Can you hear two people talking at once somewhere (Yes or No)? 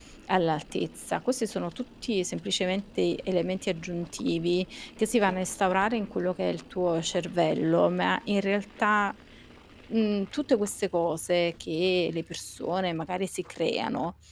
No